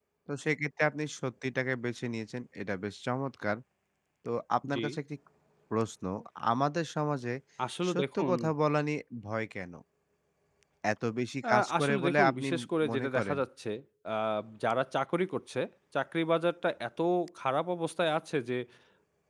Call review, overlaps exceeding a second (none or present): present